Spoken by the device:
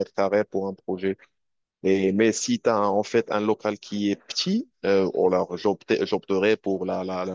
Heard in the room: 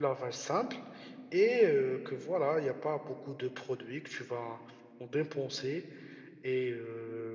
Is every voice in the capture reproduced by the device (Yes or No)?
No